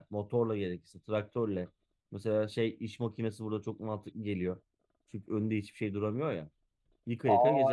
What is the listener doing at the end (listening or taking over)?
taking over